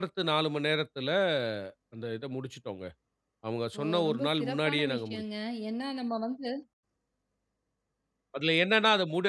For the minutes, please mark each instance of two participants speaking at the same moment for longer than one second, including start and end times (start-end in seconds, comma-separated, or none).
3.8-5.2